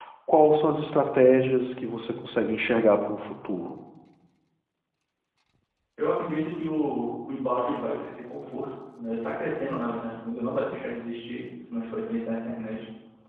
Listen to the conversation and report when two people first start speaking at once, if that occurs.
none

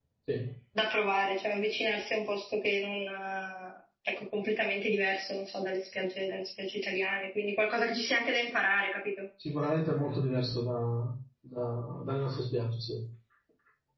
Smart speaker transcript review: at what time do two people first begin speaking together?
none

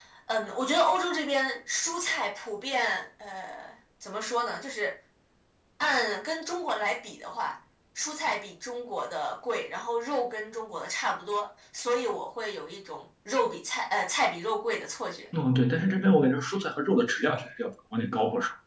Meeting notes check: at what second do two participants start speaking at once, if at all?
none

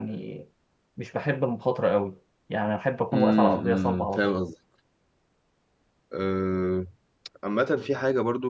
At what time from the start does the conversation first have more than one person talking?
3.1 s

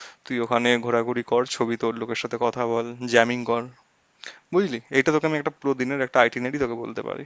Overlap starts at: none

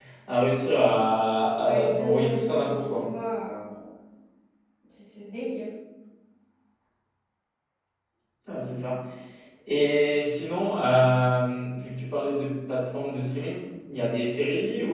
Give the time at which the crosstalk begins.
1.6 s

